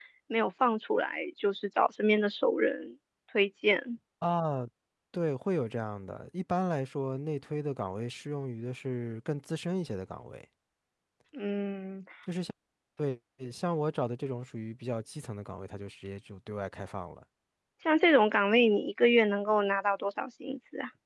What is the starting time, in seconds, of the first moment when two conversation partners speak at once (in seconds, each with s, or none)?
none